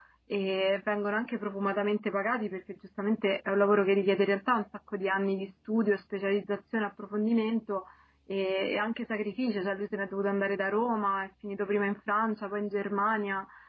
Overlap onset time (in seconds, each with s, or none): none